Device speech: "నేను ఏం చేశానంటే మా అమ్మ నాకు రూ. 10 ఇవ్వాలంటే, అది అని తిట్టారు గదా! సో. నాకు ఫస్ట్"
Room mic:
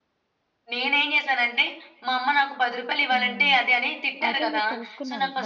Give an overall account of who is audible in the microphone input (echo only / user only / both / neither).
both